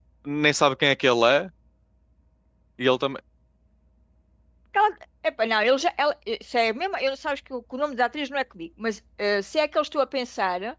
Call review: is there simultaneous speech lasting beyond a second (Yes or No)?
No